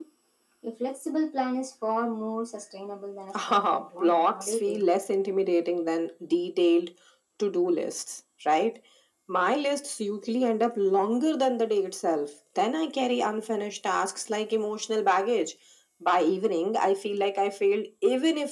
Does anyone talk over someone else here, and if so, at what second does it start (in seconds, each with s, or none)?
3.3 s